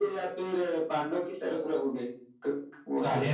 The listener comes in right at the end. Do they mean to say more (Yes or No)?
Yes